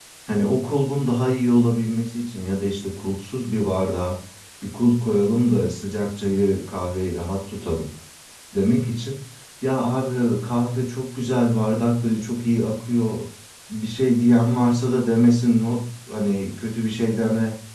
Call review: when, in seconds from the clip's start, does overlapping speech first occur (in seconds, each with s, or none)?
none